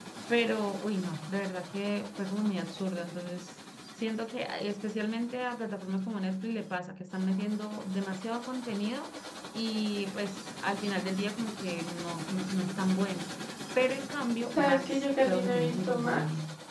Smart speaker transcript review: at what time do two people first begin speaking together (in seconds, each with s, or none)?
14.5 s